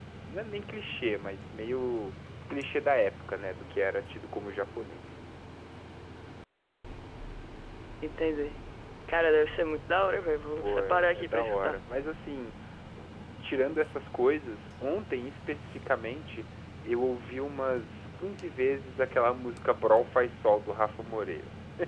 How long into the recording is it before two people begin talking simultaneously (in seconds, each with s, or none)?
10.6 s